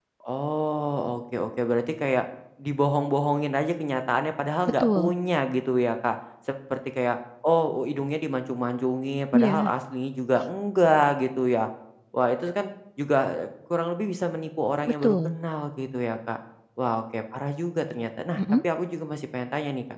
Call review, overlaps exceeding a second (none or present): none